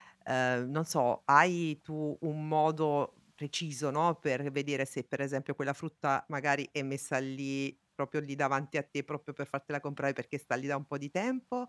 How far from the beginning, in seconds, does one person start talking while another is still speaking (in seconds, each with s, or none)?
none